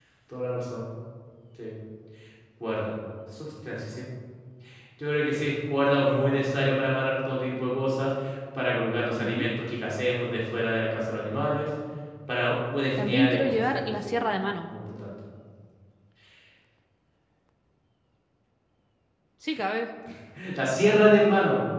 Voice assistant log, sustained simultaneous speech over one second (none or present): present